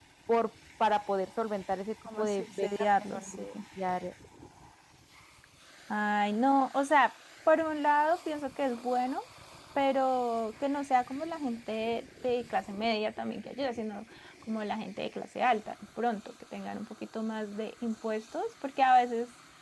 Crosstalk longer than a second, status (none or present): present